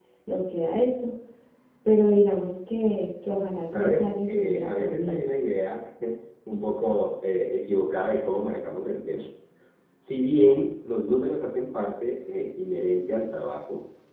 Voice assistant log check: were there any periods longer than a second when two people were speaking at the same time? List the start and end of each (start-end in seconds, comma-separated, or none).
3.7-5.3